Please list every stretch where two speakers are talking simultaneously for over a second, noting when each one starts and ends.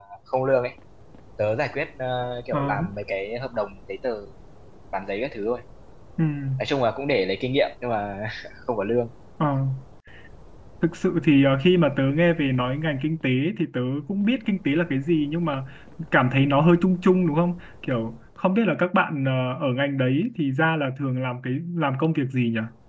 none

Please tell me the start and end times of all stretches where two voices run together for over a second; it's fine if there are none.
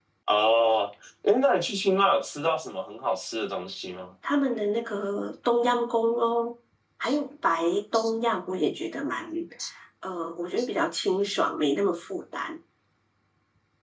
none

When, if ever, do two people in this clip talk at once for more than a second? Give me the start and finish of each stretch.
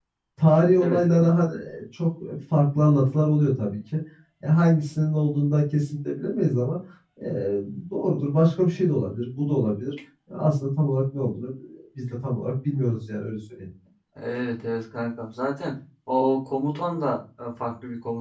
none

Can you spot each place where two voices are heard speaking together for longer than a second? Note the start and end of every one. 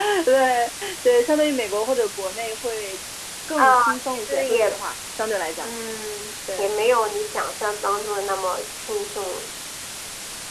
3.6-4.8

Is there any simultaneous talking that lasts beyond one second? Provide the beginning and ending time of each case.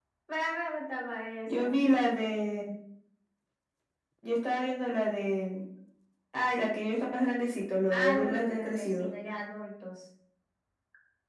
7.9-9.1

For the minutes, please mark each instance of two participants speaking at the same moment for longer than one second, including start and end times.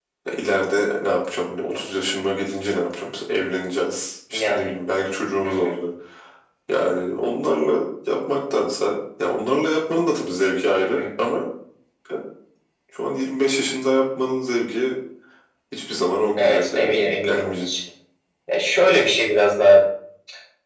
16.4-17.7

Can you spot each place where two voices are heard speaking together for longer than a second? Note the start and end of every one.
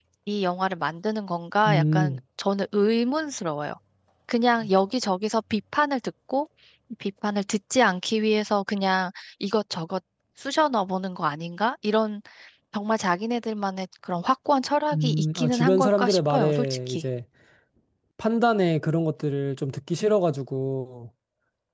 14.9-17.0

